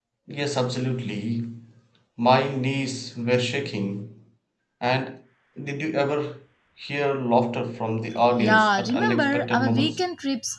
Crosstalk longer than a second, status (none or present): present